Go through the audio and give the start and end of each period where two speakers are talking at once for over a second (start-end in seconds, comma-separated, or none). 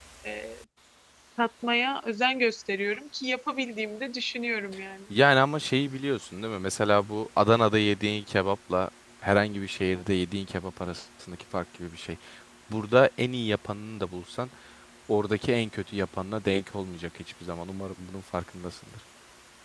none